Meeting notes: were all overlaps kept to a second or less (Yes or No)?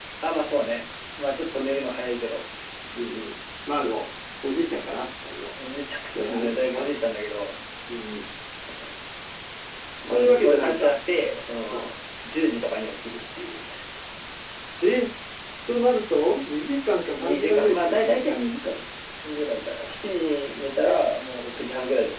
No